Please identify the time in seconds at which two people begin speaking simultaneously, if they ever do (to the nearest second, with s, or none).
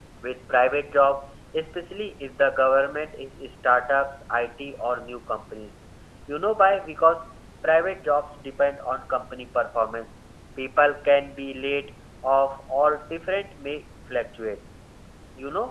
none